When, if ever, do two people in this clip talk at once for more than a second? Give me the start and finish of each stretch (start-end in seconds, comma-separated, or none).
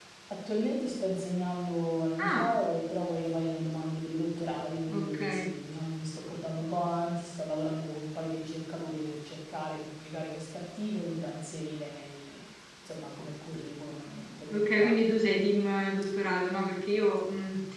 none